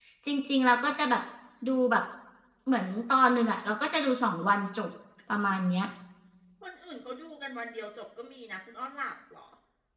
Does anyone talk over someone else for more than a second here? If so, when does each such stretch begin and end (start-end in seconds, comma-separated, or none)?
none